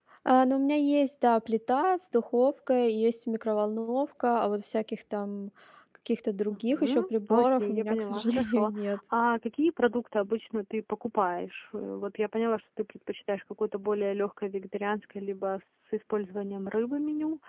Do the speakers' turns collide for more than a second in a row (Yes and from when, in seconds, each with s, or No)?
Yes, from 6.5 s